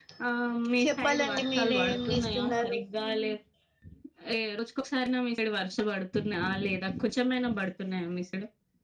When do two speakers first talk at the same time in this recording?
0.8 s

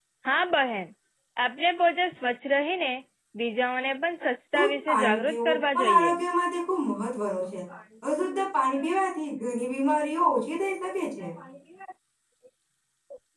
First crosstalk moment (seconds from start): 4.5 s

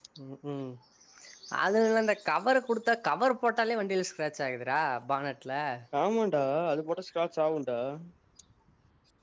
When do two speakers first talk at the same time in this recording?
none

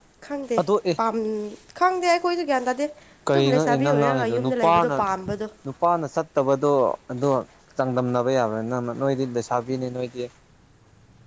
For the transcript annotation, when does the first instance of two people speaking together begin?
3.3 s

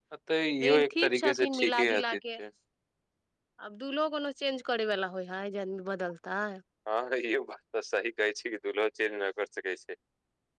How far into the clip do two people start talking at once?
0.6 s

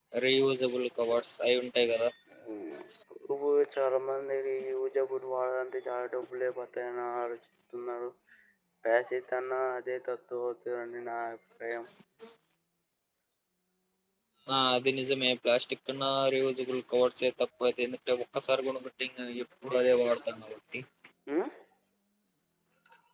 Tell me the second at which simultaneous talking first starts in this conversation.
none

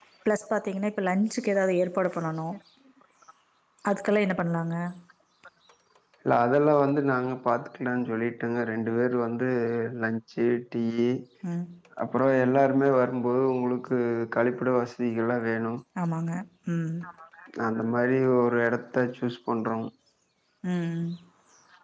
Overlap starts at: none

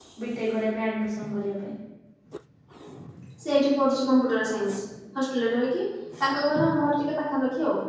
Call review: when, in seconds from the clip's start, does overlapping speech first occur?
none

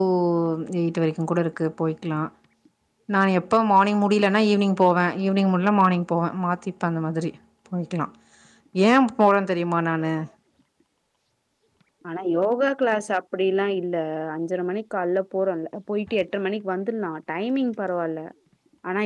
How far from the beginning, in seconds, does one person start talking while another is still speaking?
none

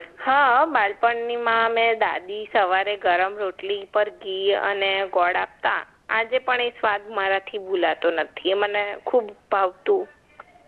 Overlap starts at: none

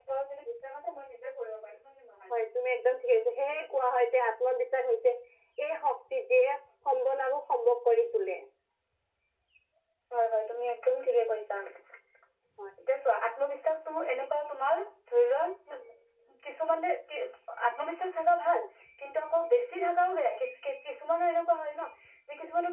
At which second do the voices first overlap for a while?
none

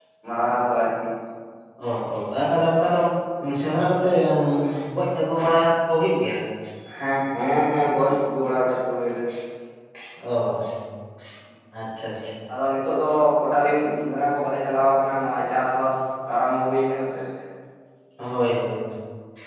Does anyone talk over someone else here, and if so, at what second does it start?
none

